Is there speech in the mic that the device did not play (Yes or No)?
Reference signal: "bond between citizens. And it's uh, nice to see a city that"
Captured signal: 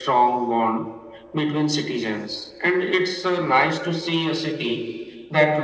No